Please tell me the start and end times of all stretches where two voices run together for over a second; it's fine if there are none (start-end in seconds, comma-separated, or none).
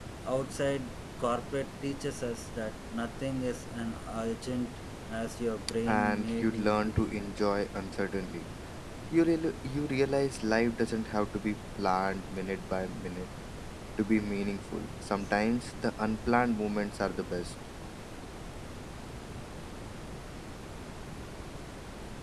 6.0-7.2